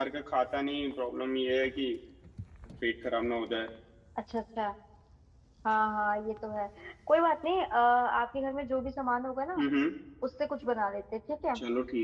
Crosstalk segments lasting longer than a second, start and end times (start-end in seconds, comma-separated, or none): none